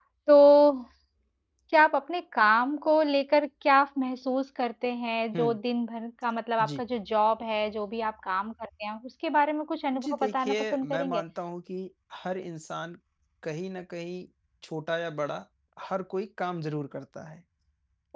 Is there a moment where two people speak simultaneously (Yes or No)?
Yes